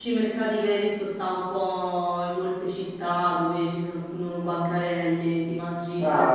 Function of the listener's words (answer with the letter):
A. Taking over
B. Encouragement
A